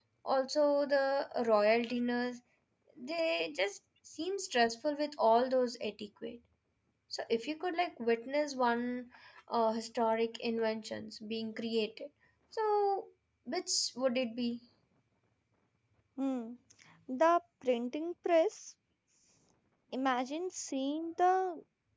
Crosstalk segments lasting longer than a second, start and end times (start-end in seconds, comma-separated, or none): none